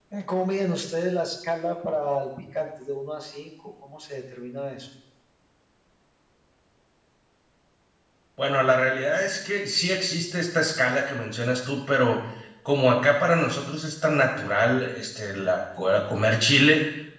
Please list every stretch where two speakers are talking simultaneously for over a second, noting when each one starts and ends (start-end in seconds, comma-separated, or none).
none